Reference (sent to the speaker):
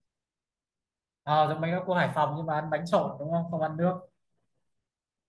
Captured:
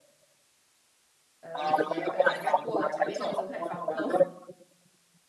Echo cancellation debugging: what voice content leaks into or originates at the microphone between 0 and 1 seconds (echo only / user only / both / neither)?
neither